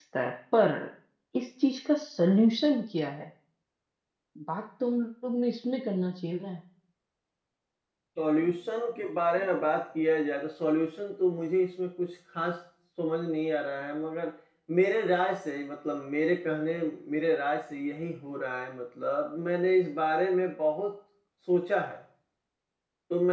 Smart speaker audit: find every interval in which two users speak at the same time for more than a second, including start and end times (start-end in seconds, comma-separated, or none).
none